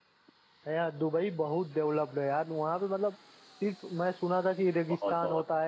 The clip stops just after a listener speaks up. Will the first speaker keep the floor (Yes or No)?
Yes